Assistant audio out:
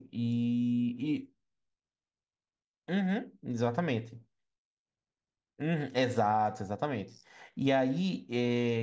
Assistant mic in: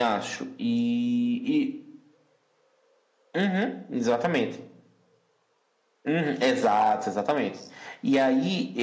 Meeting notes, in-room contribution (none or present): none